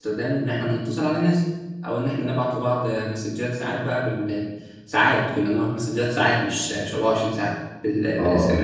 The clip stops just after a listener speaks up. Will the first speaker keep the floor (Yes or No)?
Yes